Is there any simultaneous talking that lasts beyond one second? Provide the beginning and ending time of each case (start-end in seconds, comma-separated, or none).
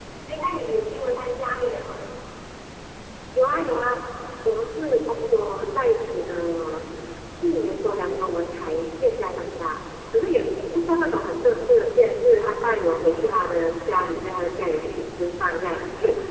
none